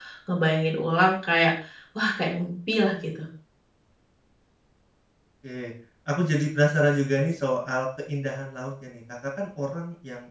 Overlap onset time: none

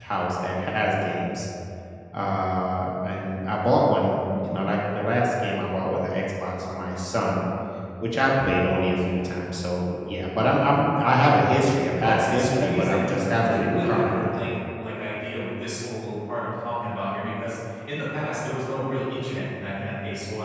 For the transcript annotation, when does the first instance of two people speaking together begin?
12.0 s

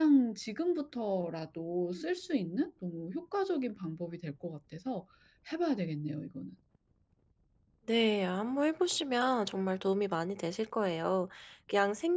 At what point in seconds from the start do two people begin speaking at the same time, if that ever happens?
none

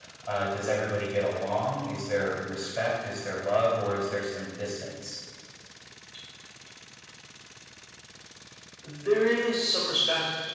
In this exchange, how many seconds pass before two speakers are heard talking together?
none

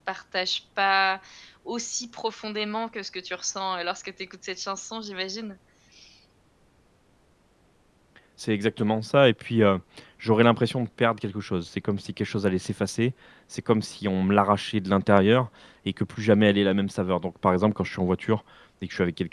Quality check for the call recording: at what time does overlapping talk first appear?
none

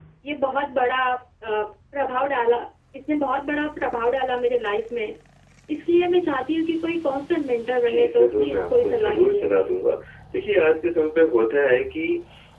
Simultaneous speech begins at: 7.9 s

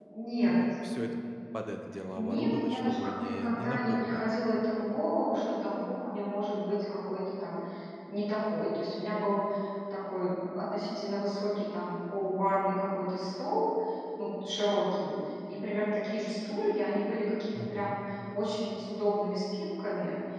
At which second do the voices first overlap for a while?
2.1 s

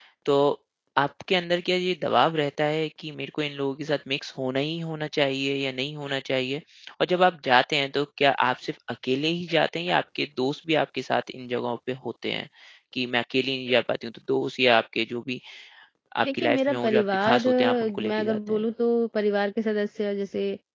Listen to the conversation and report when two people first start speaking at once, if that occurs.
16.3 s

